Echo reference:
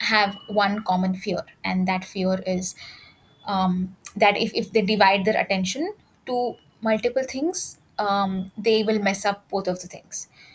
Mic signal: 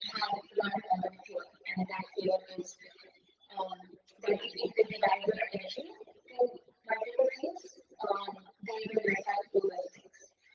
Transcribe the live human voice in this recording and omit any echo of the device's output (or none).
none